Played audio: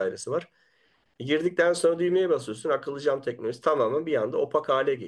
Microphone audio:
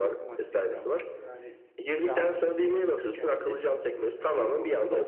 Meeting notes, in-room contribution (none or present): present